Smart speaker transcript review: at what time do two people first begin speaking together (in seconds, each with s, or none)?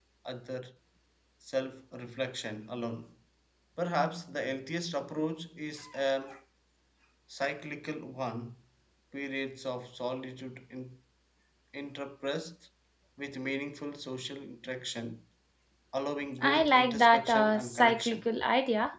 16.4 s